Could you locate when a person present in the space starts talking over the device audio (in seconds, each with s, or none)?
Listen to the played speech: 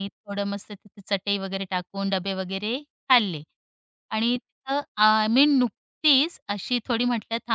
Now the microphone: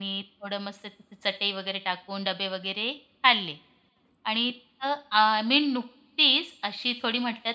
none